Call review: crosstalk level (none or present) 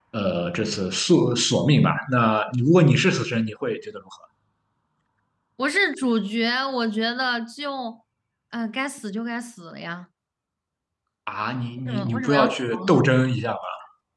present